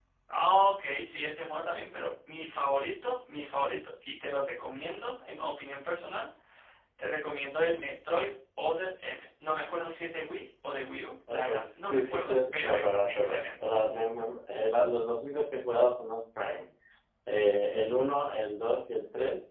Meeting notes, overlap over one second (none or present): present